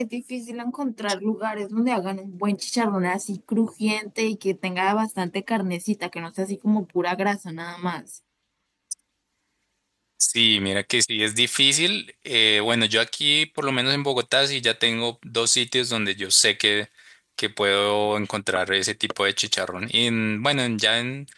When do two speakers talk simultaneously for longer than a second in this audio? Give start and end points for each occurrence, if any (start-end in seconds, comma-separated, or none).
none